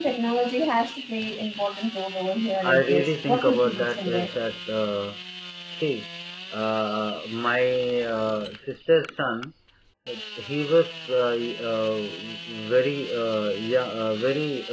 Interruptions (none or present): present